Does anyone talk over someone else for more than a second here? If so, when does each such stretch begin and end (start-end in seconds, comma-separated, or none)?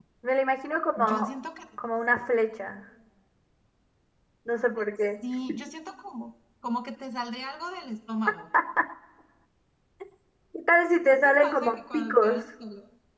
11.0-12.4